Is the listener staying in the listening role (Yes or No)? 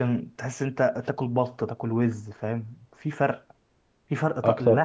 Yes